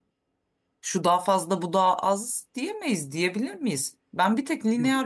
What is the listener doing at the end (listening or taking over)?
listening